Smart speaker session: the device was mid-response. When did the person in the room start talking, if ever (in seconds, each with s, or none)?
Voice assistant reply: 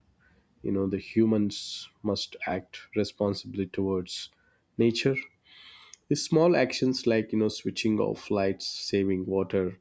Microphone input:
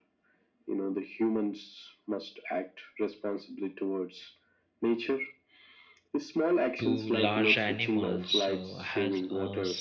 6.8 s